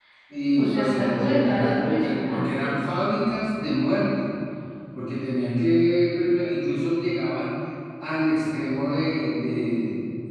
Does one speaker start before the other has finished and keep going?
Yes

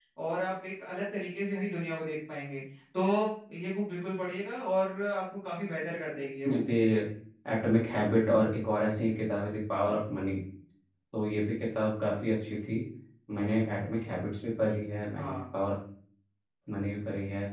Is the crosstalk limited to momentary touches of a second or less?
Yes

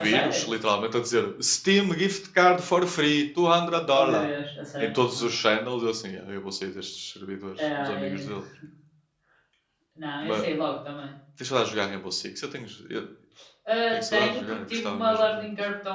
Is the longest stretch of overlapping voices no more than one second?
No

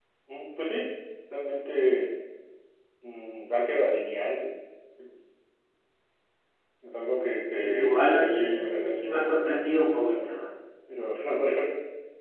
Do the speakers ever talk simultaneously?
Yes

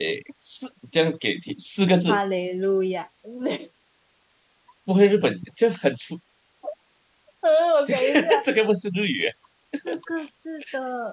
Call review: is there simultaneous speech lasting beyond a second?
No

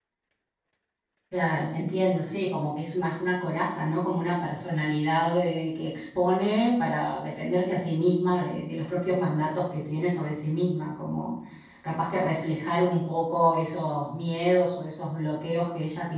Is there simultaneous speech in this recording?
No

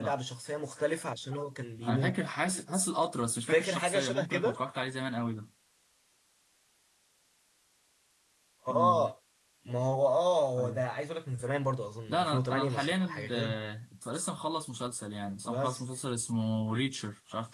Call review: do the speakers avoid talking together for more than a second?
No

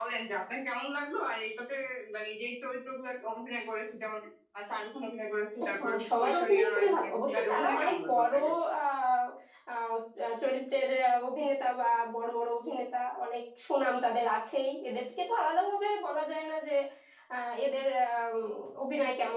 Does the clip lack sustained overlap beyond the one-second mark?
No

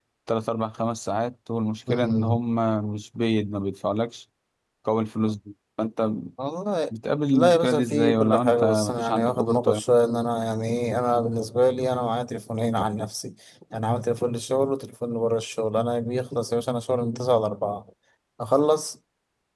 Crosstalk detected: Yes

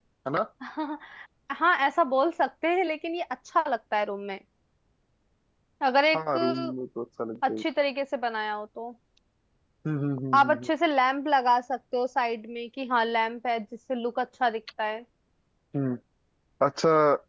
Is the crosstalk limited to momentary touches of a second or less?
Yes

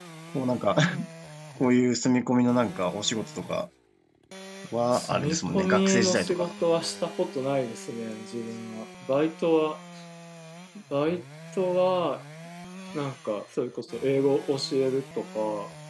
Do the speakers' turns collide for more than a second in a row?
Yes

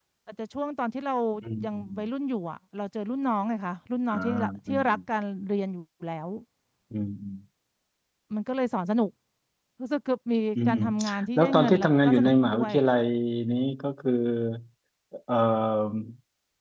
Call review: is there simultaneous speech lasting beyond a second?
Yes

